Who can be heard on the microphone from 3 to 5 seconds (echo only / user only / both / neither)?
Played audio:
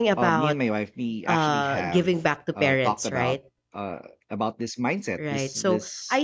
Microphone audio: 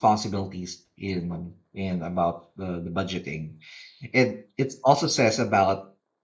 user only